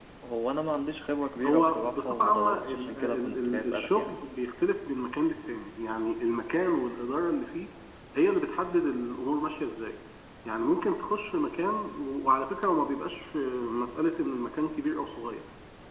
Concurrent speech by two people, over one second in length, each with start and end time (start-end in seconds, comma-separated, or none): 1.4-4.2